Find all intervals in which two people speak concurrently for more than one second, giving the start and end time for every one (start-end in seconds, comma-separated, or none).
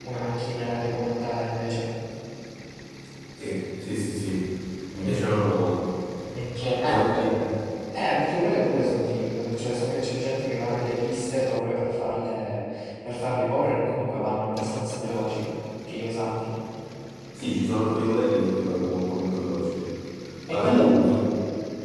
none